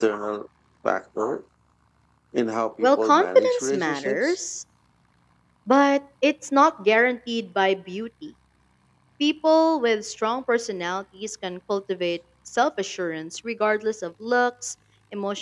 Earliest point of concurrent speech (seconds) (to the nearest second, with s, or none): 3 s